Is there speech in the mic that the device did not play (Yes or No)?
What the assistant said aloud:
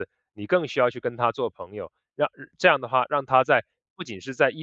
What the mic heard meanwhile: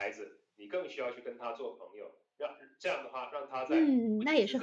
Yes